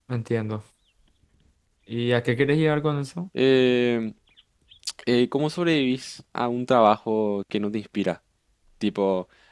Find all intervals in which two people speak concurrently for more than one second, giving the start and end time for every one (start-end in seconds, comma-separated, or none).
none